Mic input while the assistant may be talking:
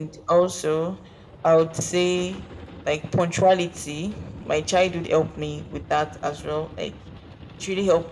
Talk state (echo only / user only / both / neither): echo only